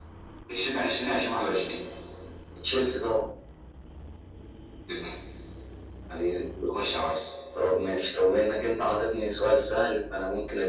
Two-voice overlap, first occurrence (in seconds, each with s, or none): none